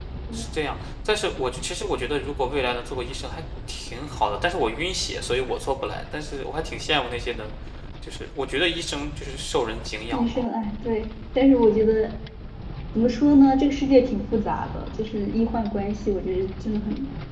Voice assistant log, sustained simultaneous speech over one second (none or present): none